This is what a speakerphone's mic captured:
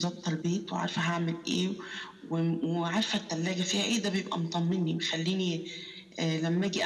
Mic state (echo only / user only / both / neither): echo only